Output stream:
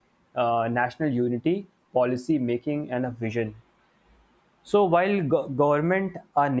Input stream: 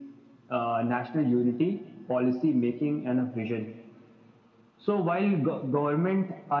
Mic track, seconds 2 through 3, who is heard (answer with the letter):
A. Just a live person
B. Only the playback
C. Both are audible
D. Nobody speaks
B